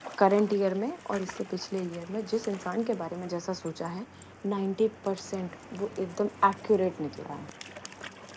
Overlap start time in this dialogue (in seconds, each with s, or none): none